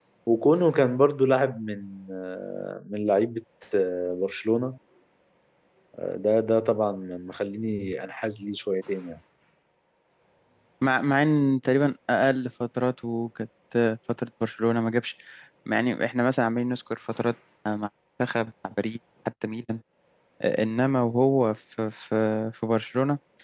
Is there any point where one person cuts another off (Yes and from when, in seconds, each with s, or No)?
No